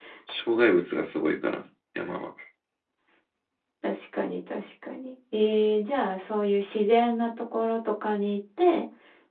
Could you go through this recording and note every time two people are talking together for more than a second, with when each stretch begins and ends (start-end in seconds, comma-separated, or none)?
none